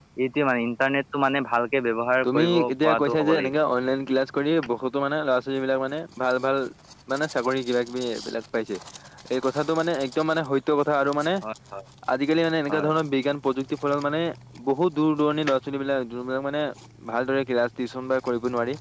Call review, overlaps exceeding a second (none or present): present